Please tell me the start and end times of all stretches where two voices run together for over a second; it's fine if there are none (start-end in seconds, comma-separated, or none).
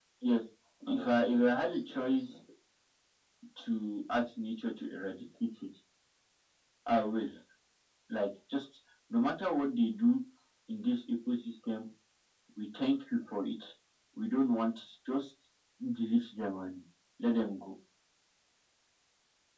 0.9-2.2